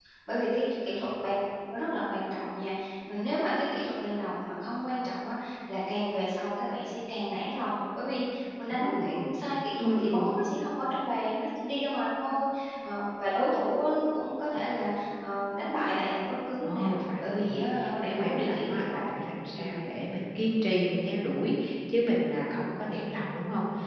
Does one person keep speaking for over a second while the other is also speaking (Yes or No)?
Yes